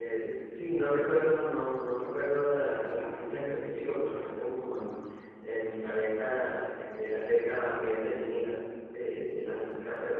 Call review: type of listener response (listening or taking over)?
listening